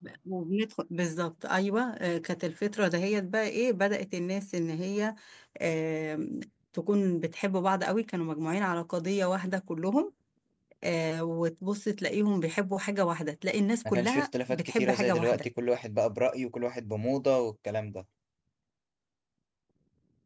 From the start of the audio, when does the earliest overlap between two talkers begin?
13.8 s

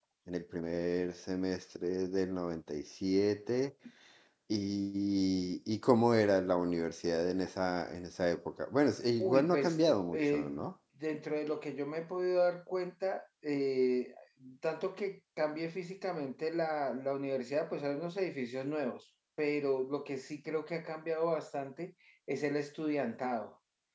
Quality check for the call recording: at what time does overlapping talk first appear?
9.2 s

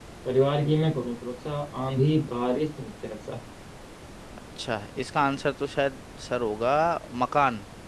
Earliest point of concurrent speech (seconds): none

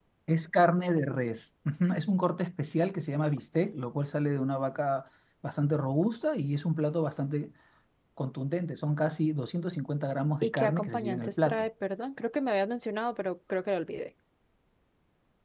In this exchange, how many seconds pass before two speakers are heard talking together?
10.4 s

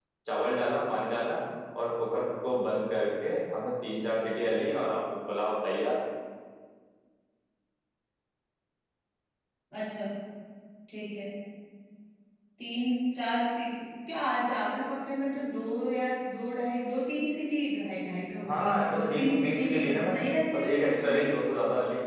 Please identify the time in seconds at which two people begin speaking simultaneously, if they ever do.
18.4 s

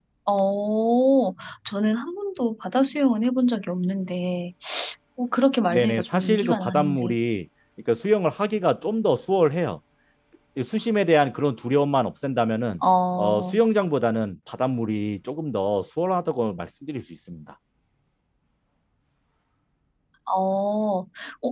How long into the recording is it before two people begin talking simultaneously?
5.7 s

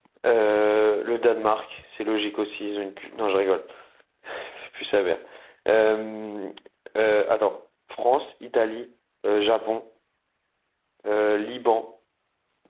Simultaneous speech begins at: none

